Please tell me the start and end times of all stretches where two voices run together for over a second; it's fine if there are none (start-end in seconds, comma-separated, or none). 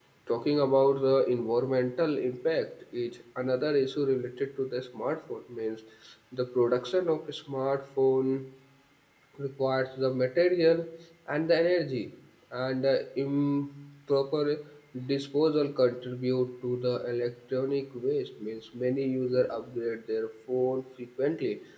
none